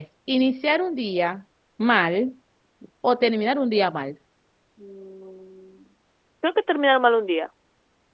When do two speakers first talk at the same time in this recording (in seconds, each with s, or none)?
none